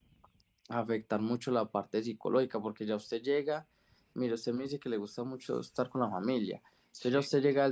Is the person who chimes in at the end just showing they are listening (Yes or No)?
Yes